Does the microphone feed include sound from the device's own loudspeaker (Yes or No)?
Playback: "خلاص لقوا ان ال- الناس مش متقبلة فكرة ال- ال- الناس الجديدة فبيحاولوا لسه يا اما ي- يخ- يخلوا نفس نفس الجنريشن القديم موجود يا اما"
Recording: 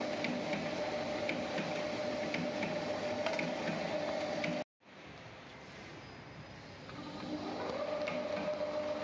No